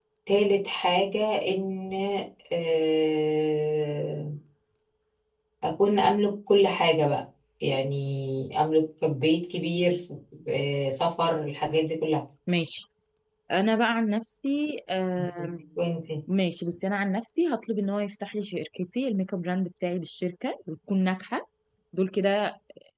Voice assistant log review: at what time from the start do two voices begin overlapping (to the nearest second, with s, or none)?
none